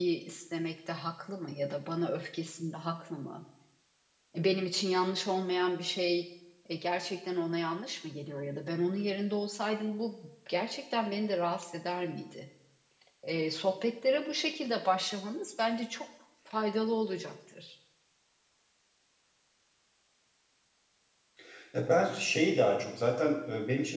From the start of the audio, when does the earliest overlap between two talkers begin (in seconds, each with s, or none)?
none